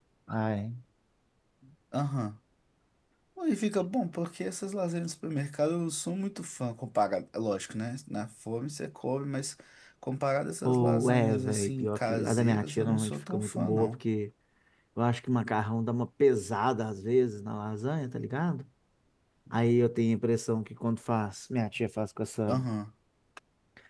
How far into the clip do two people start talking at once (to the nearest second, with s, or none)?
11 s